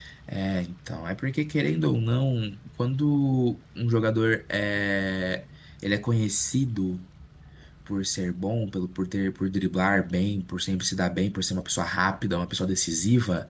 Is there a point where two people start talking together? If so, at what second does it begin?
none

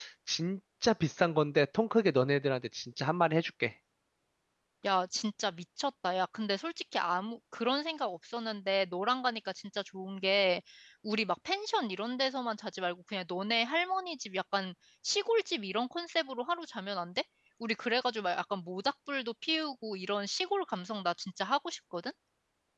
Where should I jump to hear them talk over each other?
none

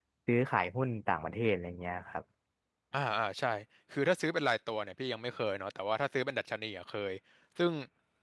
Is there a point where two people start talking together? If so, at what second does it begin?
none

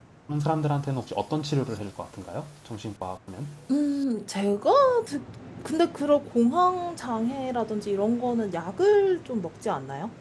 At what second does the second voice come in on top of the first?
none

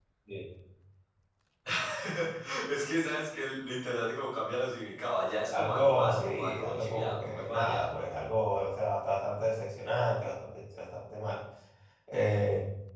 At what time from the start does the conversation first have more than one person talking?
5.5 s

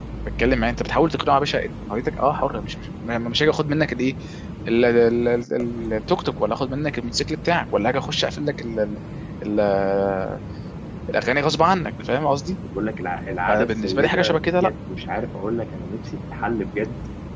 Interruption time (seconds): 13.5 s

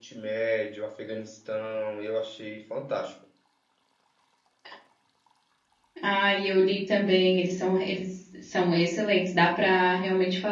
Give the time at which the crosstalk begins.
none

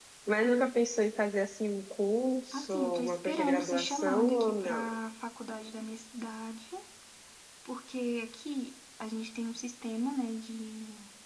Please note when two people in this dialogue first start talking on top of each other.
2.5 s

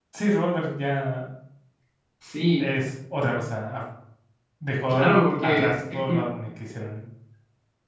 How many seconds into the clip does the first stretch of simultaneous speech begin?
4.9 s

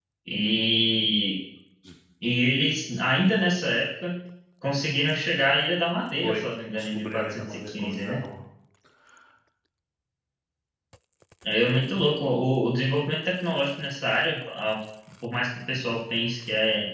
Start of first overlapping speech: 6.2 s

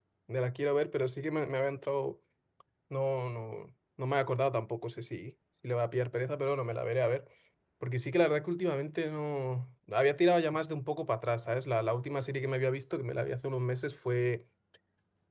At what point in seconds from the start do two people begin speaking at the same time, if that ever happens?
none

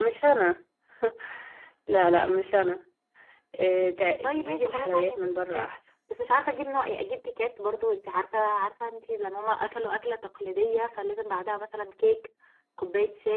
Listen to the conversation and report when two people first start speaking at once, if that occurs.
4.2 s

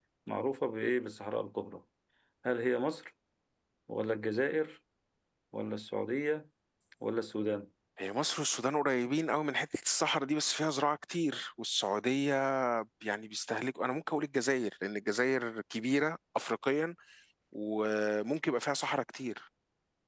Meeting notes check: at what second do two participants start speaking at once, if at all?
none

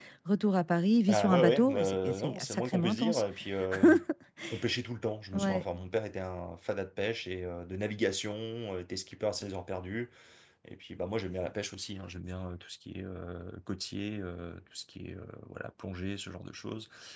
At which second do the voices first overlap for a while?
1.1 s

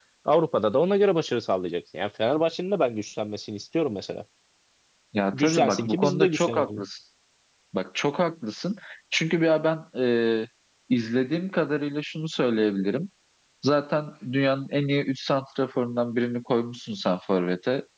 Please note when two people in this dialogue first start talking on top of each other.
5.3 s

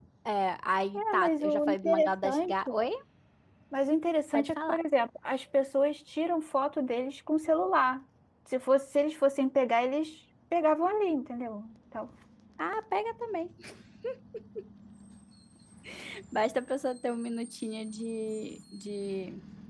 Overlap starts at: 0.9 s

